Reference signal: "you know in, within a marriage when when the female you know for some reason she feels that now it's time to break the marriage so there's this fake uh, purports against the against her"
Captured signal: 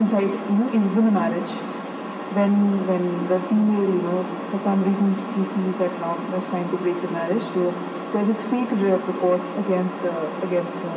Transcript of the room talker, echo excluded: none

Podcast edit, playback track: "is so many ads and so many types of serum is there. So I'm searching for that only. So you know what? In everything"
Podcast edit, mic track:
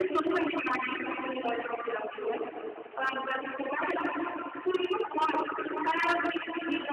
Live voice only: none

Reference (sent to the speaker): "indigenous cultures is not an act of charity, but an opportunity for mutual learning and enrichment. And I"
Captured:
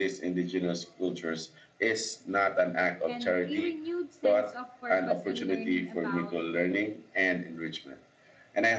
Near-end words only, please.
and a renewed sense of purpose in learning about

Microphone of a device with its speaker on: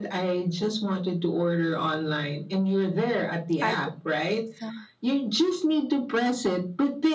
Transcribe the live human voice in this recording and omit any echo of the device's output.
I think it's uh,

